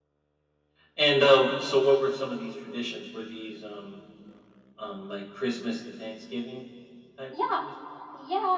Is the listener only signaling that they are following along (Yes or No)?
No